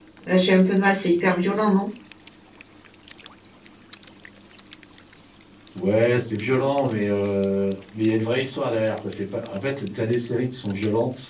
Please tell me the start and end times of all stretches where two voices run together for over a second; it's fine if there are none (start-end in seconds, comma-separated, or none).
none